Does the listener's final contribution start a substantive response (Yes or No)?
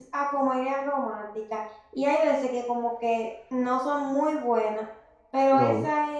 No